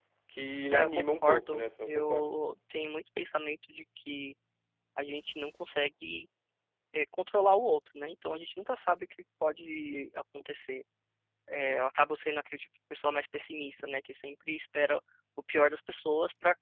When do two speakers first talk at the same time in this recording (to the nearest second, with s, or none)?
1 s